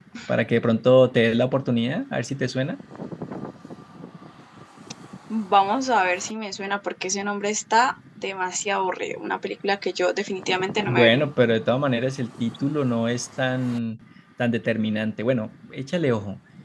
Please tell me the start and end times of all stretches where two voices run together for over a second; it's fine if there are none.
none

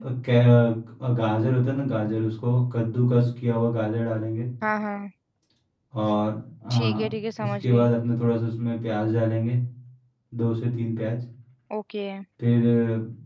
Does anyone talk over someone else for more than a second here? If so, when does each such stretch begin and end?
none

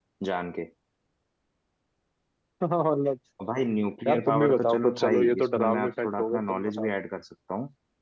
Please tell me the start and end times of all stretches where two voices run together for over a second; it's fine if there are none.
4.1-6.9

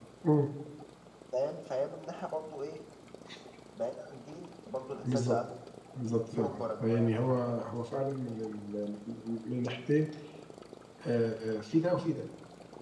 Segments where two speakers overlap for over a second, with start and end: 6.3-7.6

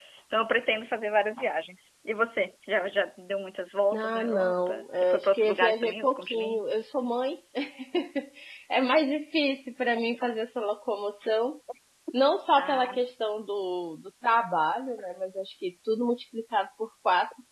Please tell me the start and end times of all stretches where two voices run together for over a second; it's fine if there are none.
3.9-6.7

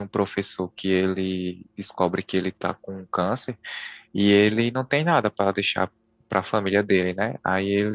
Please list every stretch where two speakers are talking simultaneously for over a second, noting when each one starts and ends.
none

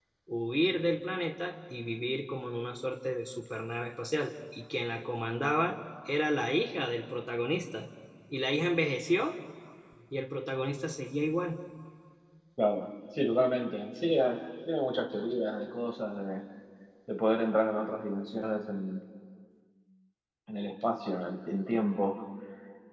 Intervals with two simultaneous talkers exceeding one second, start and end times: none

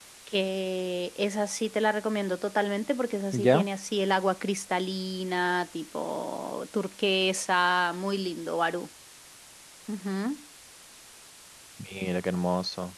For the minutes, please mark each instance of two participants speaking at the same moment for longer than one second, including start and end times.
none

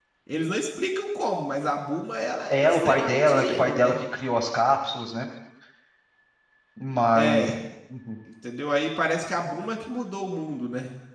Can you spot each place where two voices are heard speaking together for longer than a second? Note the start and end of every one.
2.5-3.9

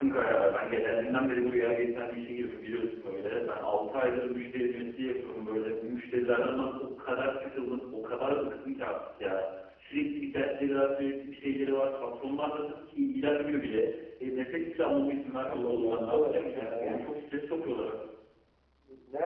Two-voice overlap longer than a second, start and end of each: 15.5-17.0

